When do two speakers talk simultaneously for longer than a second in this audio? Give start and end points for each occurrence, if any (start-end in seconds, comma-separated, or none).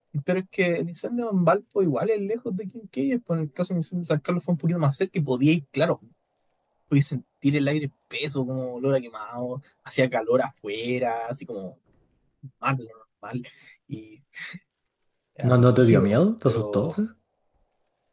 15.4-16.9